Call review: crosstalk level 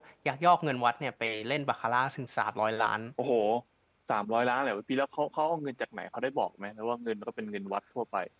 none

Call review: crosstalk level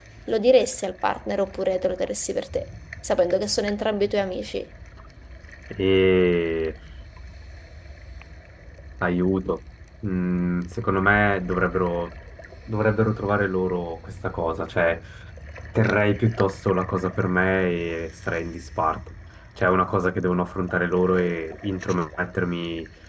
none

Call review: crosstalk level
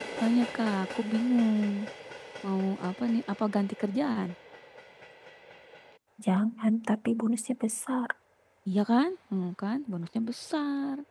none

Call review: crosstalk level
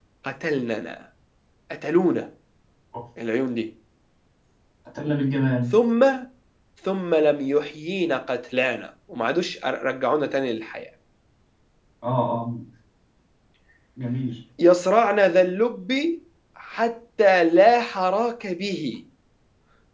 none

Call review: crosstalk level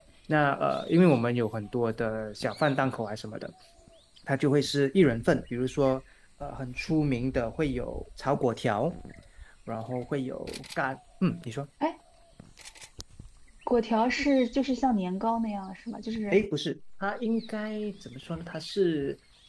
none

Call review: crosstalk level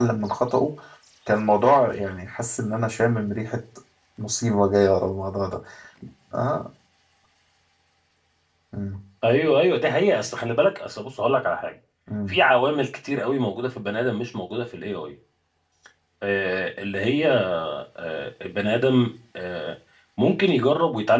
none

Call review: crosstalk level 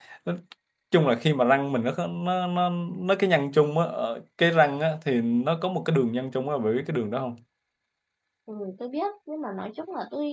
none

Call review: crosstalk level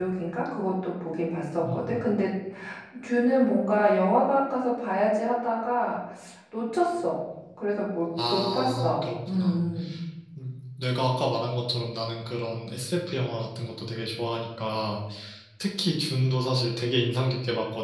present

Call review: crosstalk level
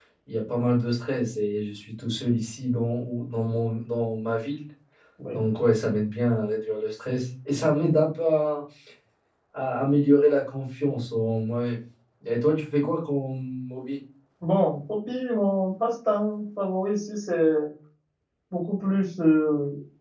none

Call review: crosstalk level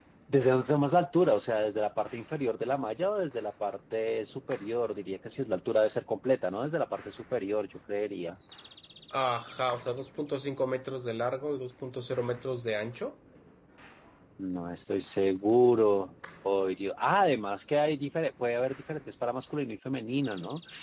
none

